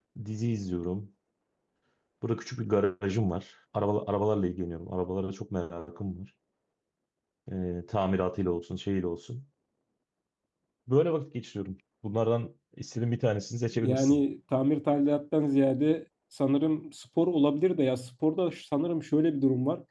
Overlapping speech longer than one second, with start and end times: none

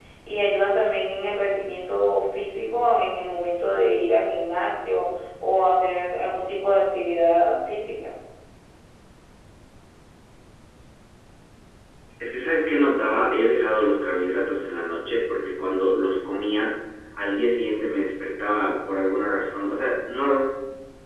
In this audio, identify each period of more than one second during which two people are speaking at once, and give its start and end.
none

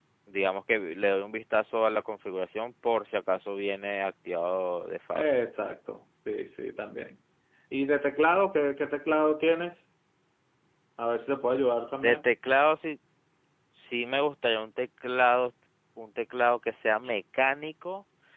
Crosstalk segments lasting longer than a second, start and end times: none

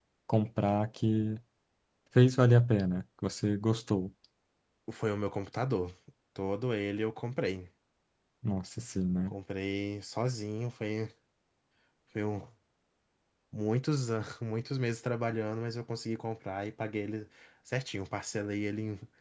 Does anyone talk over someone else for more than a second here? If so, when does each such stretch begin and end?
none

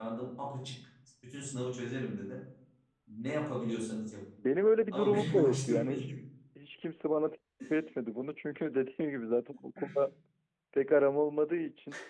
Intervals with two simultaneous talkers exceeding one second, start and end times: 4.9-6.1

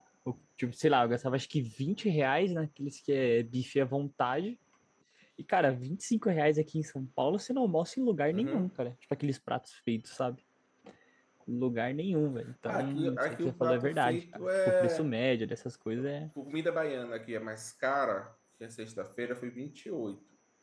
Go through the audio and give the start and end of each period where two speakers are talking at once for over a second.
12.7-15.1

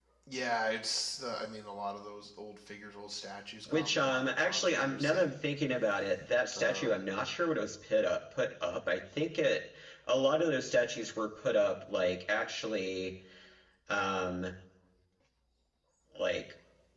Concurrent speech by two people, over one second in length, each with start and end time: 3.7-5.3

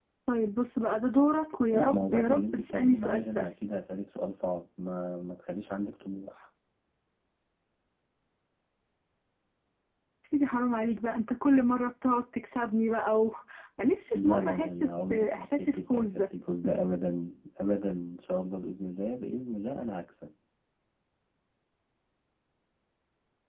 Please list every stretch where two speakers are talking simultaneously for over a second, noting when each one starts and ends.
1.7-3.5, 14.1-16.3

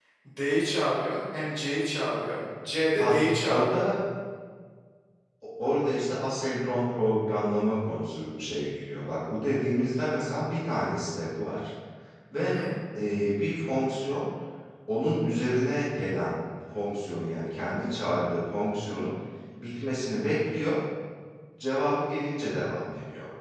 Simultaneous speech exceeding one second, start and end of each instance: none

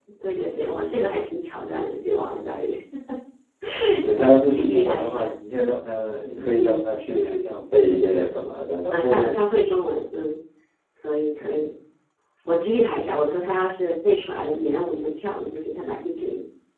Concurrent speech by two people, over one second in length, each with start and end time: 4.1-5.4

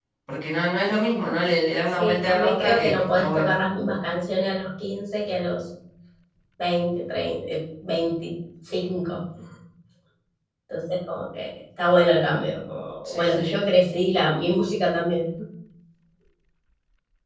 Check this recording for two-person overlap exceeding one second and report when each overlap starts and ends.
2.0-3.5

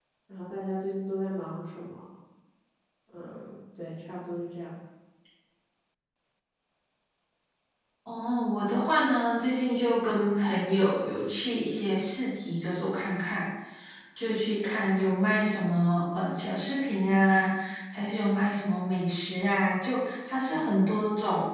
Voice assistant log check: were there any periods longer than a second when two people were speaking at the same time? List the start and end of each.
none

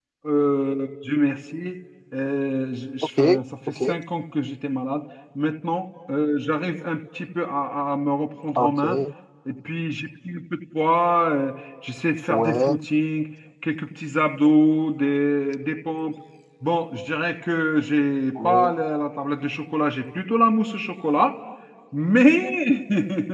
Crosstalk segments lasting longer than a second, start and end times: none

